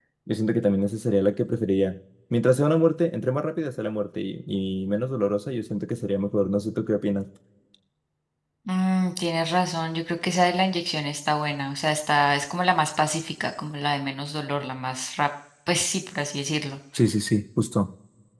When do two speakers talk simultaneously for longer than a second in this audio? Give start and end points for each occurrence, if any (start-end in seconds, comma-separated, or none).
none